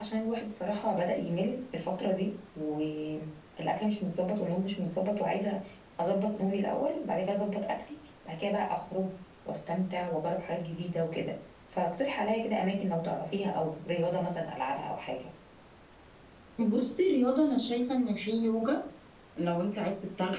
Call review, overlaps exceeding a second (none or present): none